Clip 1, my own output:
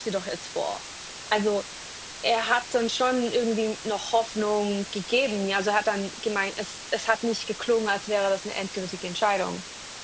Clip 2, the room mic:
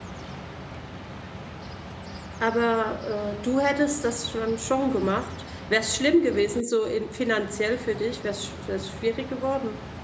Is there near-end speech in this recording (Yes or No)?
Yes